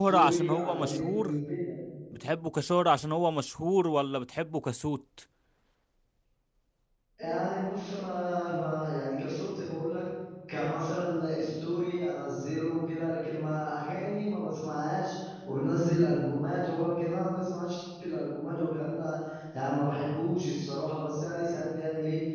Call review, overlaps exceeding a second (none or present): present